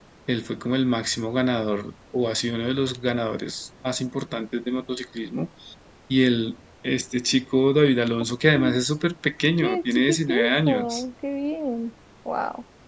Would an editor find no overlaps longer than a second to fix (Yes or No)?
No